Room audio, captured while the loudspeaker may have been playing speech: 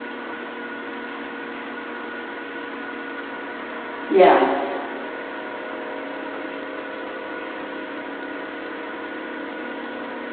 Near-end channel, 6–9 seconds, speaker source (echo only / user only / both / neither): neither